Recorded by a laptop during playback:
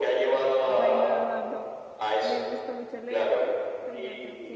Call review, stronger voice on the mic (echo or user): echo